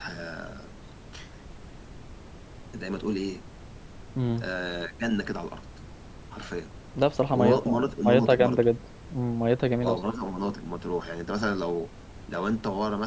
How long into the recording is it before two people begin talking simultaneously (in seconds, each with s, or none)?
7.3 s